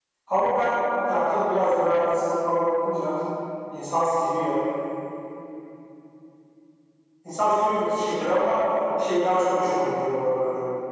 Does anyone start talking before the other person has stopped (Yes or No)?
No